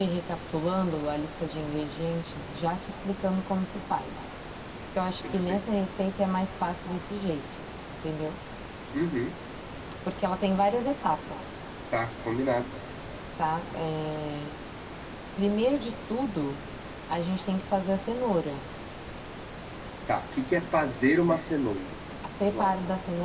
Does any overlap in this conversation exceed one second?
No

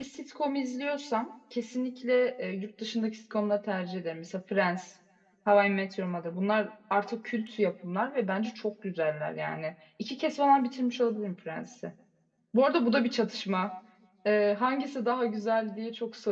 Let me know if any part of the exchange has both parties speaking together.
No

